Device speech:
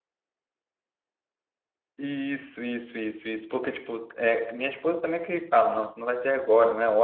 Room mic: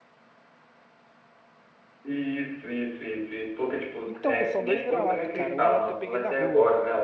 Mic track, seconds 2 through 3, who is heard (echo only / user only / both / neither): echo only